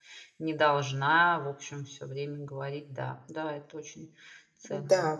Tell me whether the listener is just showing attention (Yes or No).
No